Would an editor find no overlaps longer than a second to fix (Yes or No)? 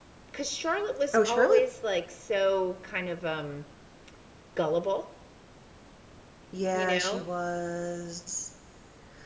Yes